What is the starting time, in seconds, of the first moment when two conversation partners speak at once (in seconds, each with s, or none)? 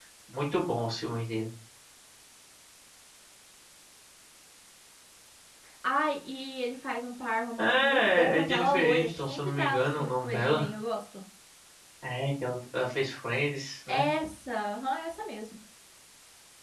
7.6 s